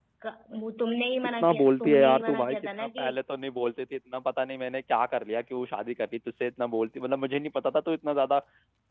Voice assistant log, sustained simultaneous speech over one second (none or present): present